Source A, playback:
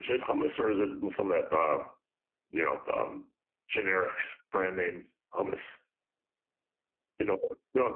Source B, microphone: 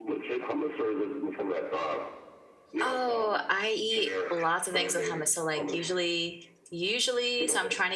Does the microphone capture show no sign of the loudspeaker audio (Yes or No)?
No